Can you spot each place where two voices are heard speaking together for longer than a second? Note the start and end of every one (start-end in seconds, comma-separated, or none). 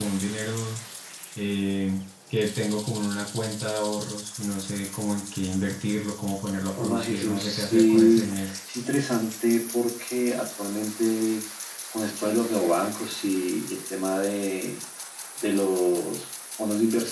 6.8-8.2